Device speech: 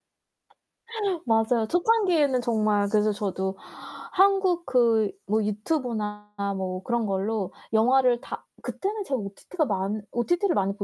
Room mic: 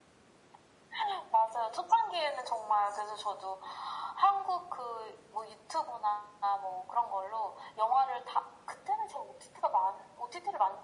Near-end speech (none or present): none